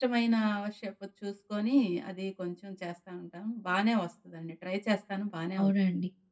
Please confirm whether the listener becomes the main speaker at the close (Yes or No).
Yes